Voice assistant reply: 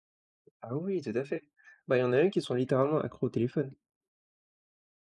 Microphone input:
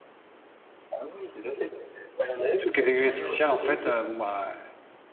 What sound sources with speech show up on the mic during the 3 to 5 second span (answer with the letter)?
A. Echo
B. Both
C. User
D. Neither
B